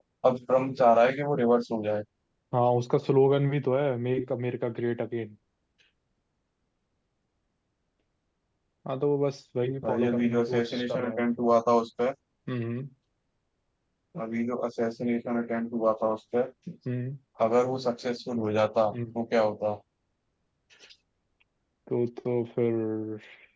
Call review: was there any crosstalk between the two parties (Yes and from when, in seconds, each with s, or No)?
Yes, from 9.8 s